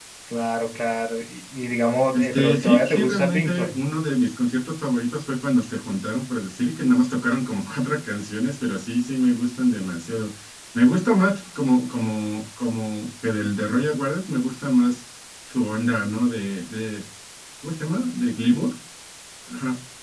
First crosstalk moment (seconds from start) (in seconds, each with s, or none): 2.1 s